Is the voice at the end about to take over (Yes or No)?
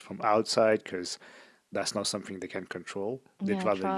No